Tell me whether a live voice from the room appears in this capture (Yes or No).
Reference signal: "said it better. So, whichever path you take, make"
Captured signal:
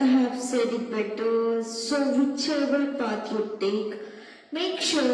No